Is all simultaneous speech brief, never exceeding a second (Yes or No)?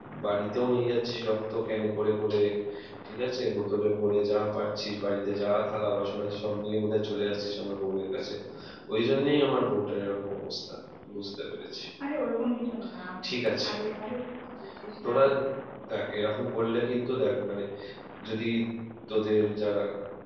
Yes